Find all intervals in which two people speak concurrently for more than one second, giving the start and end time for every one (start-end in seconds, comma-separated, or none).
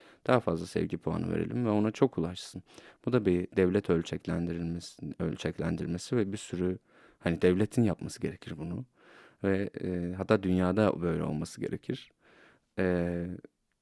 none